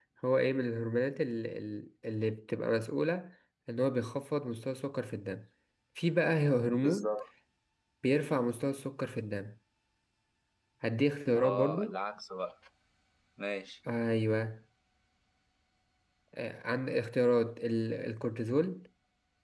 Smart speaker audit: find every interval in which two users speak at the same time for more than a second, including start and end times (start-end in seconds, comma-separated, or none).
none